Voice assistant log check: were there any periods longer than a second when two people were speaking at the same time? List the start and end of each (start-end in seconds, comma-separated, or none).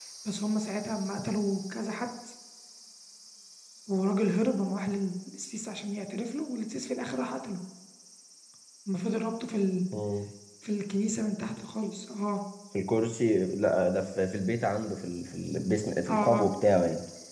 none